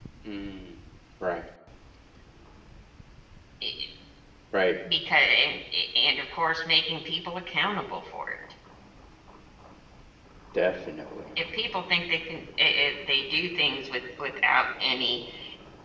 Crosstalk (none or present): none